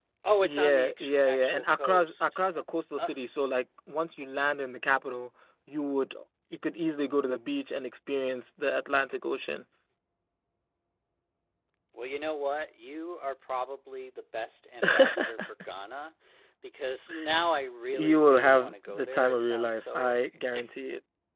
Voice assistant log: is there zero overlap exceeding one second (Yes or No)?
No